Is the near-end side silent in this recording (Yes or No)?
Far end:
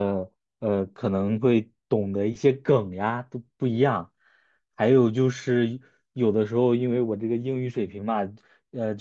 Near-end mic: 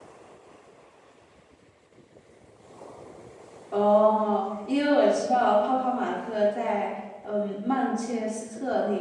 No